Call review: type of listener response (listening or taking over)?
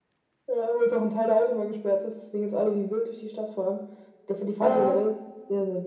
listening